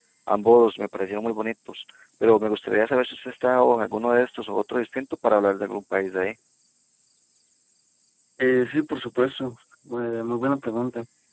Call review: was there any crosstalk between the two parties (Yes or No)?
No